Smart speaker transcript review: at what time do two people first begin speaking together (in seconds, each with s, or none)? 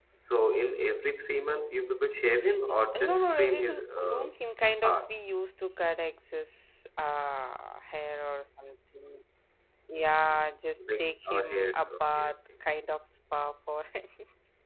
2.7 s